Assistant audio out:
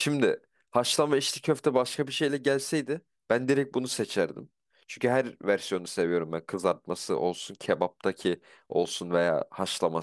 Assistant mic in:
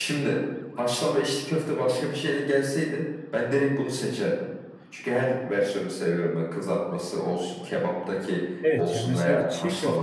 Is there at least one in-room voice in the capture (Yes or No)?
Yes